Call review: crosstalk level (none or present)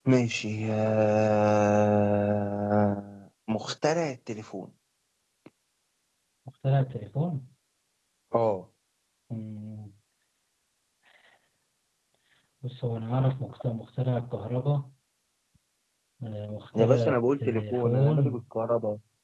present